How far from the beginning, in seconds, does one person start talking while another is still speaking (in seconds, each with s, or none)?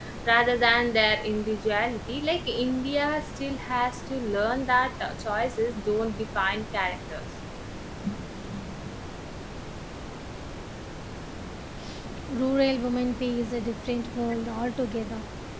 none